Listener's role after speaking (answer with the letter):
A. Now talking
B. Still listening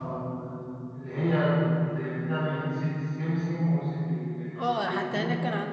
A